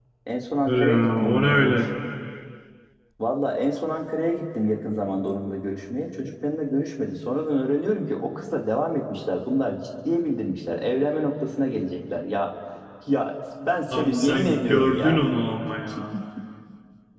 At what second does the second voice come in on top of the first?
0.6 s

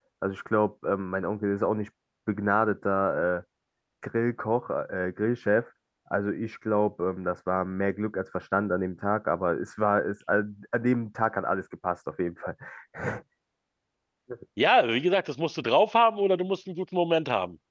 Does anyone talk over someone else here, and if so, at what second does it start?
none

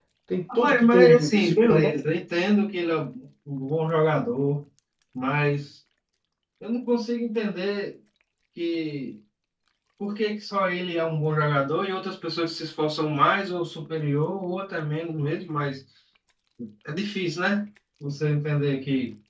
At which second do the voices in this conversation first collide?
0.6 s

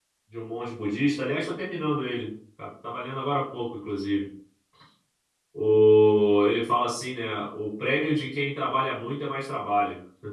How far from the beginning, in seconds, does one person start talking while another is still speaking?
none

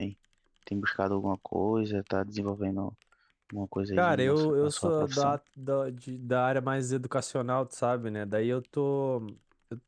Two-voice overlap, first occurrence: 3.9 s

